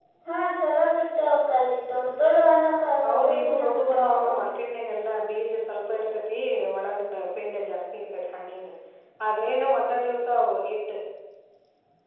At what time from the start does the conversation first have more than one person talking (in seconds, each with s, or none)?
3.0 s